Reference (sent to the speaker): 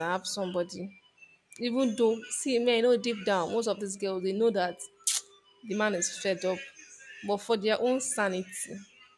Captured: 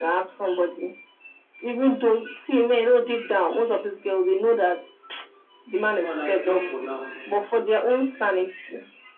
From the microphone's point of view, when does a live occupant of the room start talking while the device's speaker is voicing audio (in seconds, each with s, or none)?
6.0 s